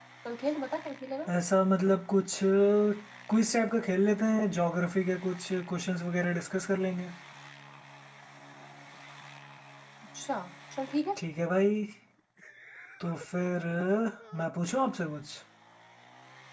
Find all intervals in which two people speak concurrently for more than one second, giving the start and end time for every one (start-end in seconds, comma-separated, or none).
none